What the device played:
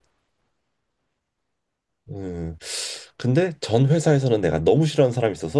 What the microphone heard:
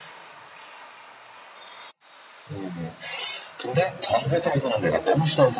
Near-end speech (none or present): none